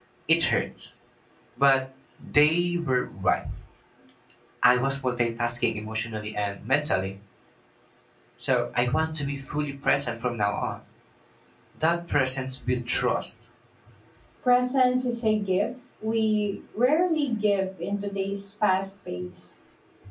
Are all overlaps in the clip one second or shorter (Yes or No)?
Yes